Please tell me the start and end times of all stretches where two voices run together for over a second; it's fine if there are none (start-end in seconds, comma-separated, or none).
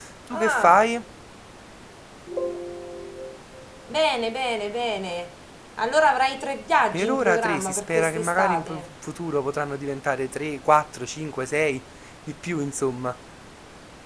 6.9-8.8